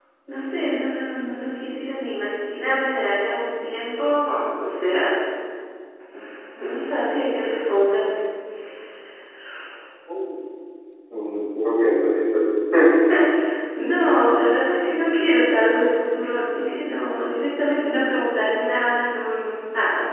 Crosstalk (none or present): none